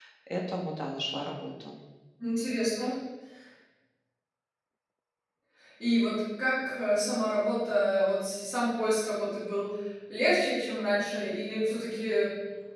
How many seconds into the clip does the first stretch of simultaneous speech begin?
none

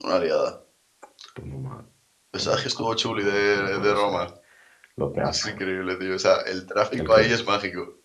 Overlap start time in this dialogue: 2.4 s

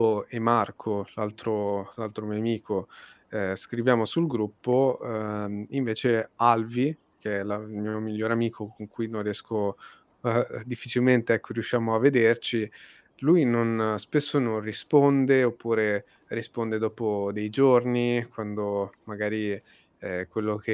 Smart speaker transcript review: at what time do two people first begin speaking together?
none

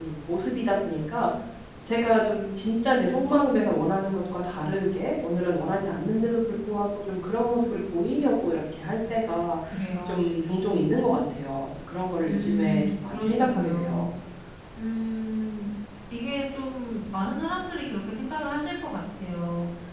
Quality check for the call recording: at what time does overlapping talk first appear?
12.2 s

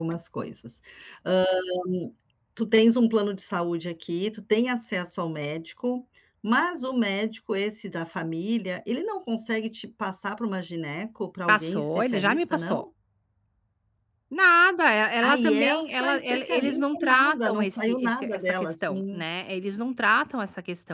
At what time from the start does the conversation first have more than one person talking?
11.5 s

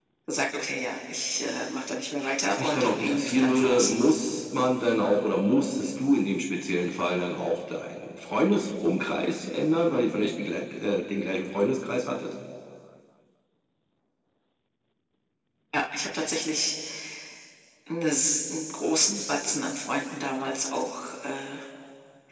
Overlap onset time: 2.2 s

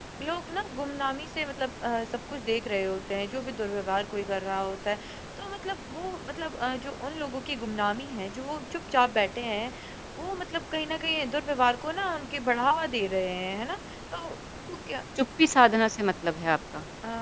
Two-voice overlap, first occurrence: none

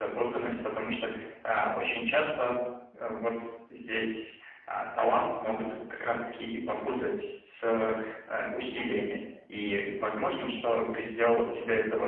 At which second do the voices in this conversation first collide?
none

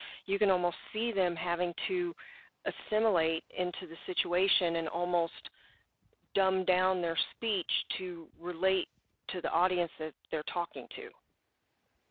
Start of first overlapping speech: none

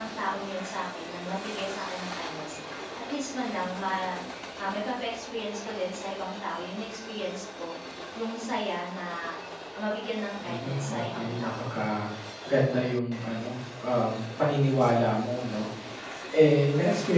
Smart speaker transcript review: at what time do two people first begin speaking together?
10.4 s

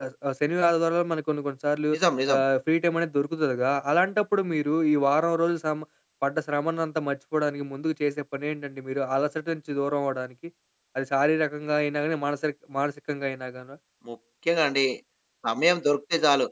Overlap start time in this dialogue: none

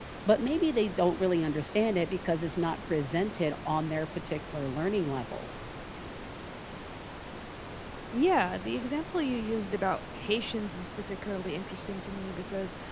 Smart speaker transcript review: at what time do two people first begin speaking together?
none

